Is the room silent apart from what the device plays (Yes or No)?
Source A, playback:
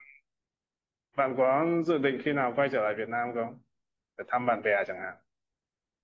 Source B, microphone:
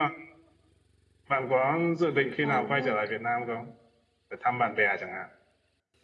No